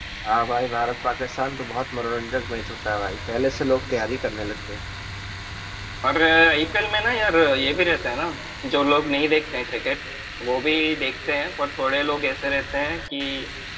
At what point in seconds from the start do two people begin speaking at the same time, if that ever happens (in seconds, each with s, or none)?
none